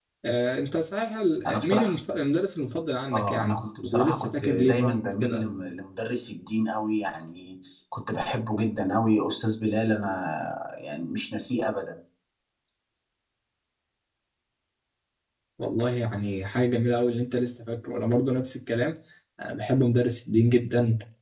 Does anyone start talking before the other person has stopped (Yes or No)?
Yes